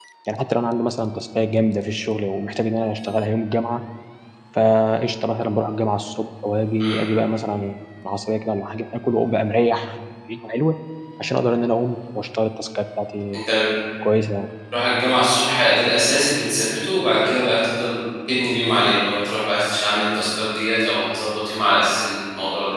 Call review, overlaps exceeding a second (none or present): none